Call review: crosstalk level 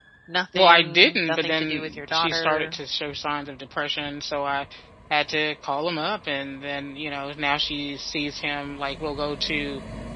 present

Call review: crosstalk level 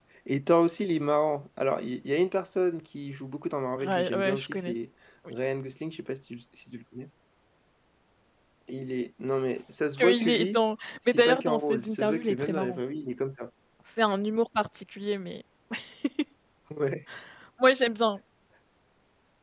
present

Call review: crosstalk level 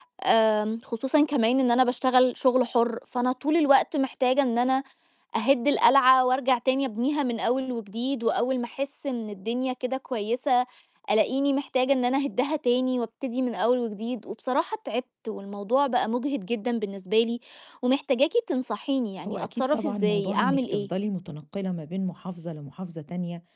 present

